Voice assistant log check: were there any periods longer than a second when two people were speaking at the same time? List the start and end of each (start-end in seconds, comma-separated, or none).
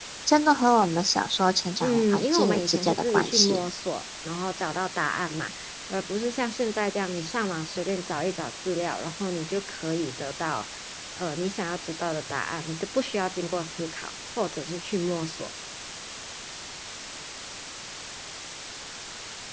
1.8-3.7